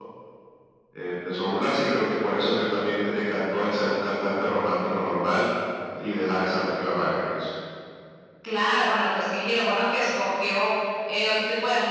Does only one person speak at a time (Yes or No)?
Yes